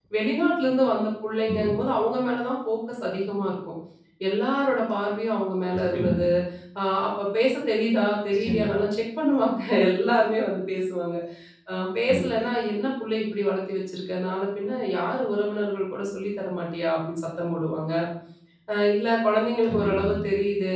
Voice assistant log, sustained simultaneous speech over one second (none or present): none